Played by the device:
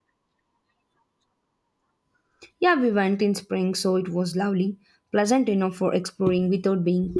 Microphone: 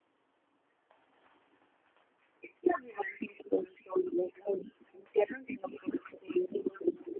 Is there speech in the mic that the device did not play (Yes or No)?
No